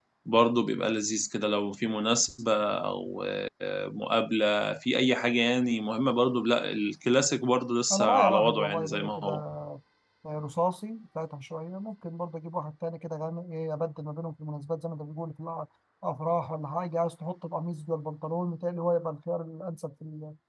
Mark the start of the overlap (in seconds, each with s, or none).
7.9 s